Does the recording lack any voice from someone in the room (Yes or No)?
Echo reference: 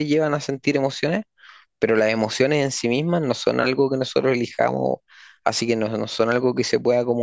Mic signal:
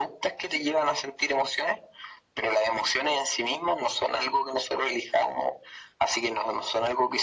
Yes